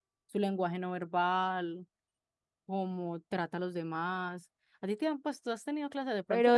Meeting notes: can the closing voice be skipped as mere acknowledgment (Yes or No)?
No